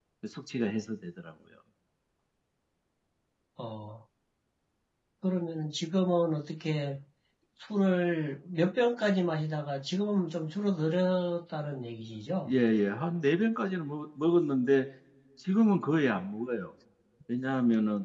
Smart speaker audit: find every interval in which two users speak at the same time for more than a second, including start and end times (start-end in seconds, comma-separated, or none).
none